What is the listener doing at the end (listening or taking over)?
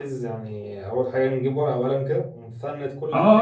taking over